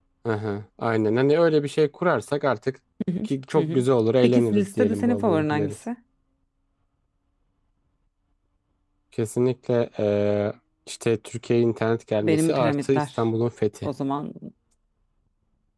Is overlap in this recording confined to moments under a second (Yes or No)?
No